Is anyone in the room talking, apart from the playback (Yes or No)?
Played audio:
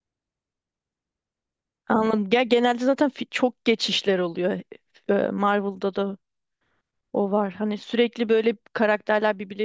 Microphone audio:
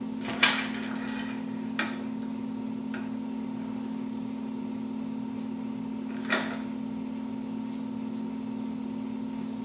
No